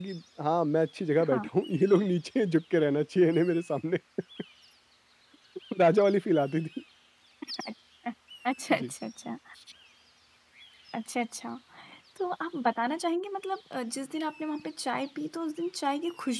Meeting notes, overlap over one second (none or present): none